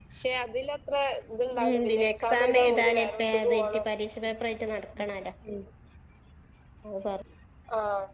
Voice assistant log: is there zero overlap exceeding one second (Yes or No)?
No